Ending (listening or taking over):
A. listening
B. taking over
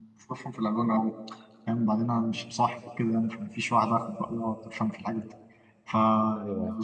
A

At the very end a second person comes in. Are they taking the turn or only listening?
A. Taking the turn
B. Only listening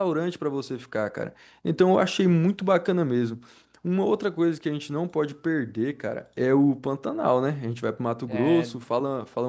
B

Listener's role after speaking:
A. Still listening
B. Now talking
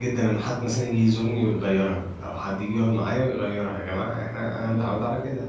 A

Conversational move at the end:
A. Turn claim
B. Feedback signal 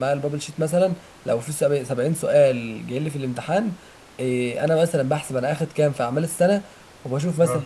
B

